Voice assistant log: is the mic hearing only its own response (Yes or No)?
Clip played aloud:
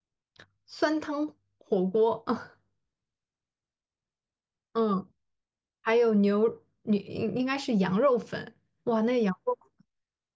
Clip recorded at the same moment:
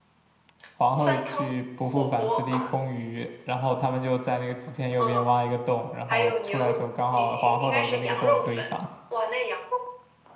No